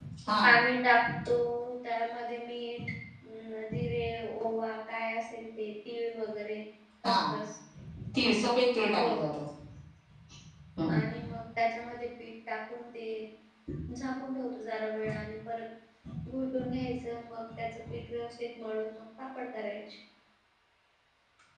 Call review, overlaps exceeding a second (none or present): none